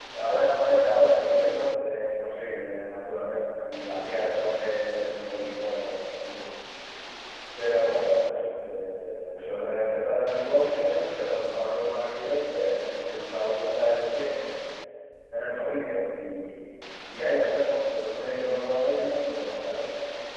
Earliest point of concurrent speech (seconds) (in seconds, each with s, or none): none